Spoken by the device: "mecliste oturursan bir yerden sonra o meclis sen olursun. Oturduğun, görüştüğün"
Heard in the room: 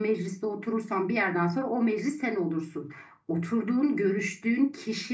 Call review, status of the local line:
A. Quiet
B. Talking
A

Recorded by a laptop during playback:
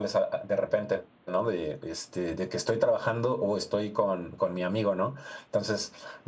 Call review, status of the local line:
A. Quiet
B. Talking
A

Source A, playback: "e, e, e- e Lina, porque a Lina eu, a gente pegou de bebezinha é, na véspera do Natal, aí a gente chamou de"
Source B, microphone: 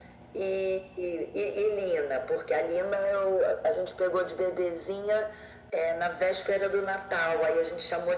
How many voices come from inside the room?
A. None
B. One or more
A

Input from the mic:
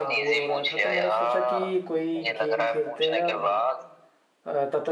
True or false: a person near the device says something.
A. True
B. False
A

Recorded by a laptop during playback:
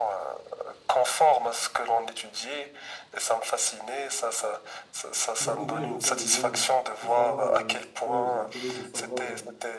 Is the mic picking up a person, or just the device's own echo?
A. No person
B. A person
B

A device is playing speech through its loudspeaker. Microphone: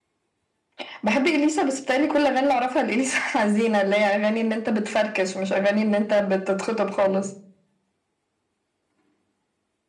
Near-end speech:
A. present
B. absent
B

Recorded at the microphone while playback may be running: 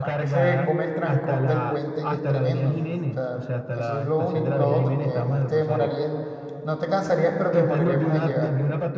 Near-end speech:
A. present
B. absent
A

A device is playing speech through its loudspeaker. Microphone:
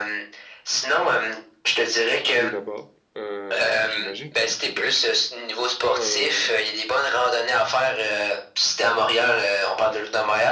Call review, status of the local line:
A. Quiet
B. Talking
B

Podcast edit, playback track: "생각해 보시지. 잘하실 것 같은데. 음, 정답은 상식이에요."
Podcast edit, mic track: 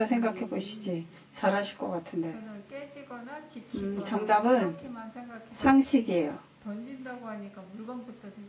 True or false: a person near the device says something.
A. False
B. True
B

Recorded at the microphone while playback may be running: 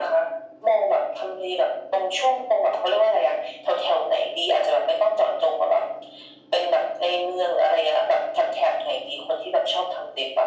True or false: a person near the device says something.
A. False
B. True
A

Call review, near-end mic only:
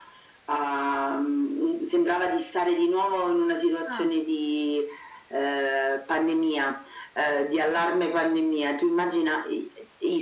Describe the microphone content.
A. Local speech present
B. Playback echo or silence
A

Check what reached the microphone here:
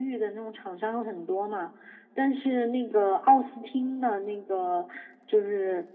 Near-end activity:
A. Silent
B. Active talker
A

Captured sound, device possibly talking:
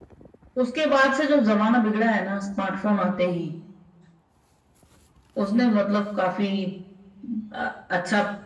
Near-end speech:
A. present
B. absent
B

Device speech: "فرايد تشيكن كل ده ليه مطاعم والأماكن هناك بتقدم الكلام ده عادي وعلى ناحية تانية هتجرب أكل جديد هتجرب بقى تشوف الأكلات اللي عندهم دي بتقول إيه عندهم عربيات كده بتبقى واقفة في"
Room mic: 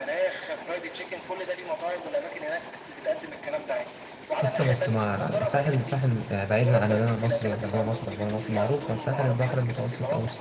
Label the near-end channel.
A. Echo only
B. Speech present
B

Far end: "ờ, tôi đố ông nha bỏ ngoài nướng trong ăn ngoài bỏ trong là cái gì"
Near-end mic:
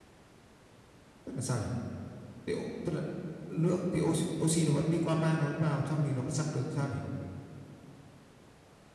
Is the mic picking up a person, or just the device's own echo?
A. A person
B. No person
A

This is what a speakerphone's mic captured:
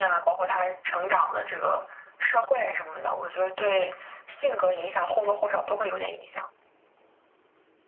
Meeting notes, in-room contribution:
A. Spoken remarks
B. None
B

